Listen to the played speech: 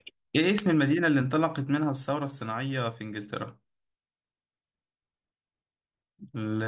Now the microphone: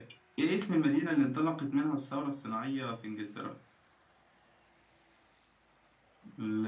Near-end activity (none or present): none